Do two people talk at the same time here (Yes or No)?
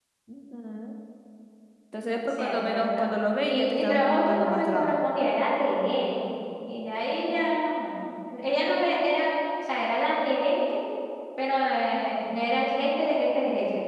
Yes